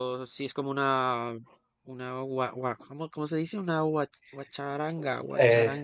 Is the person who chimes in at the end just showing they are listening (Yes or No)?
No